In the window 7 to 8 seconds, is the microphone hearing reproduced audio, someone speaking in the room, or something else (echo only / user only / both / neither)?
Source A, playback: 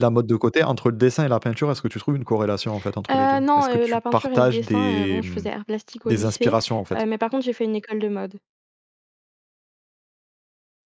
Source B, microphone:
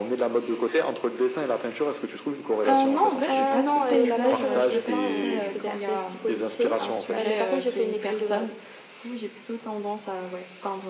both